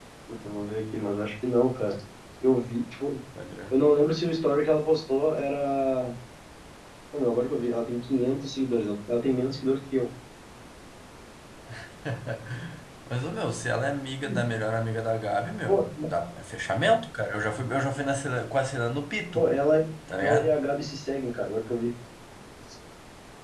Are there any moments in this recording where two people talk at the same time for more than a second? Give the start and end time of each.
none

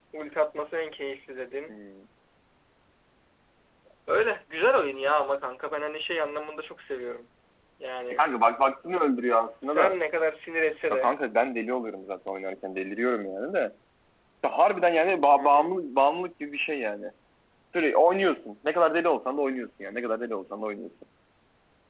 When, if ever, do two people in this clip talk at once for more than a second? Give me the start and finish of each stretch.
none

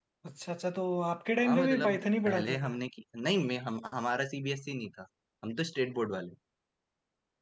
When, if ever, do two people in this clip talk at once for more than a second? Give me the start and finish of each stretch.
1.5-2.8

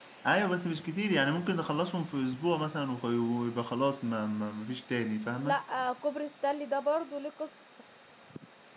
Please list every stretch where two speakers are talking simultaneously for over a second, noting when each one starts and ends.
none

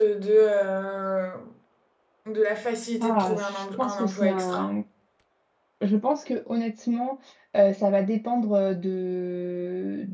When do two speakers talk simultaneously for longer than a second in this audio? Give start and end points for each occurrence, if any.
3.0-4.7

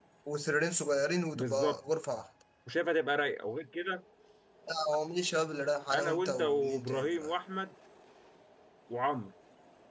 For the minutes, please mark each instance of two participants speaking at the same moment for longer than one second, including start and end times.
5.9-7.3

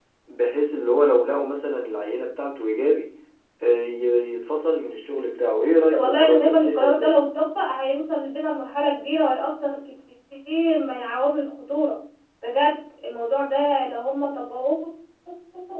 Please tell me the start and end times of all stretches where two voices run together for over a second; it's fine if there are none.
5.9-7.1

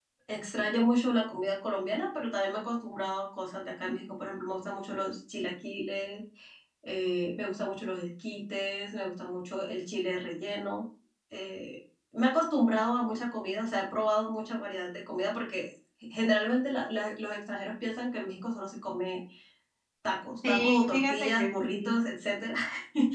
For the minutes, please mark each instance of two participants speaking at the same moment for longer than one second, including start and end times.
20.5-21.9

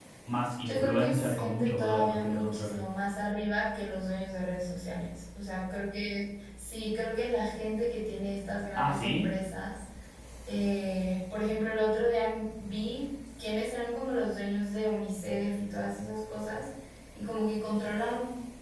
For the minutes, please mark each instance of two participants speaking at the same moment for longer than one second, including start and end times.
0.6-2.8

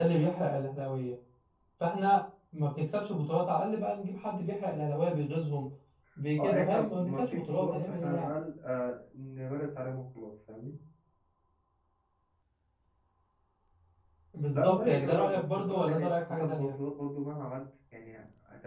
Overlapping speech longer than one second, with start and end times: 6.4-8.3, 14.5-16.7

